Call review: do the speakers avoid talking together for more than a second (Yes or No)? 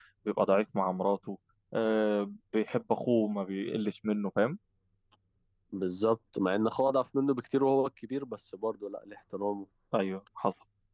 Yes